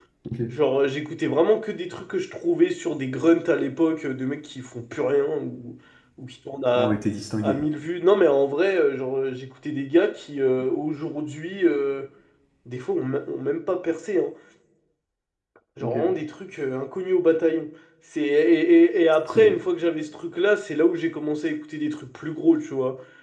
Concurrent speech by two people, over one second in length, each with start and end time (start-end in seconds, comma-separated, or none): none